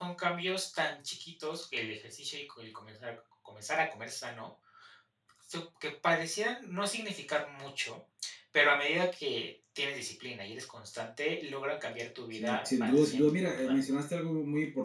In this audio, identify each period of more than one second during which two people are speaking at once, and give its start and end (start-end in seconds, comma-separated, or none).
12.3-13.8